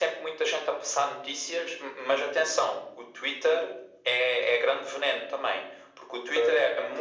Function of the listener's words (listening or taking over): listening